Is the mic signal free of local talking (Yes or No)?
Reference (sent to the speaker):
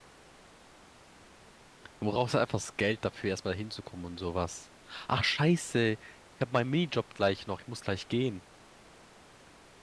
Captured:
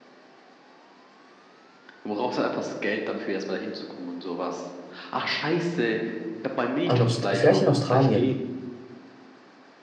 No